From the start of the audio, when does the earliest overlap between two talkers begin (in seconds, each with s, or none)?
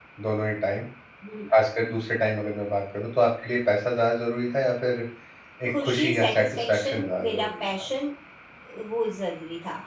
5.7 s